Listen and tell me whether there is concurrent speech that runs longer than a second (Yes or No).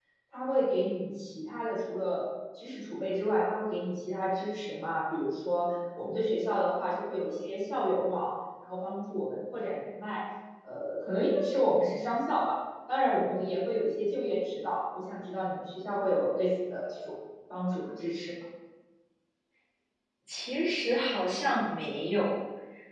No